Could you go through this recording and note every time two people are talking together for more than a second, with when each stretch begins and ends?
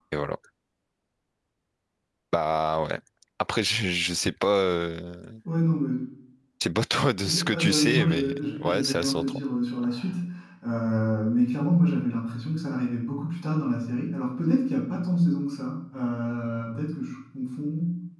7.2-9.4

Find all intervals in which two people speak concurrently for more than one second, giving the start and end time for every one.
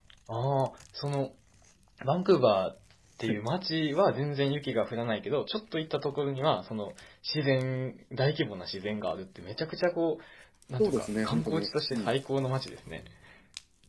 10.8-12.1

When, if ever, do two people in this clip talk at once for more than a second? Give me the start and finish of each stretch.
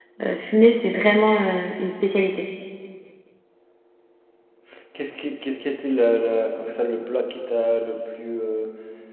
none

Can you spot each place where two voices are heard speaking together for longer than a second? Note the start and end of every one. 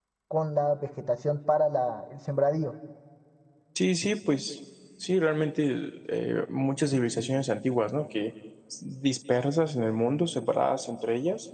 none

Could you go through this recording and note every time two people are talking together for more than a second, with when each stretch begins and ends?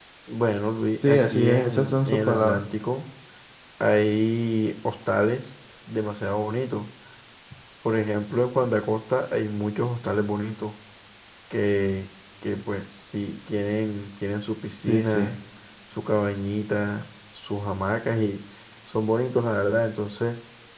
1.1-2.6

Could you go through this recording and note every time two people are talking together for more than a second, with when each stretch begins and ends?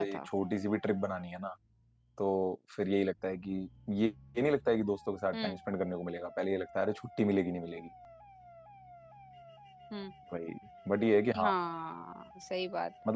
none

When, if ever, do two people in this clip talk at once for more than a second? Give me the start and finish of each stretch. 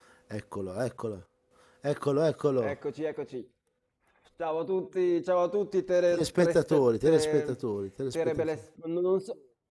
6.1-7.6

